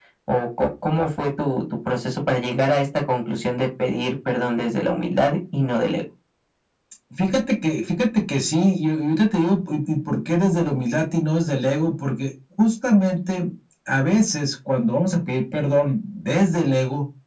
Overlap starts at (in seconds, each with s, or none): none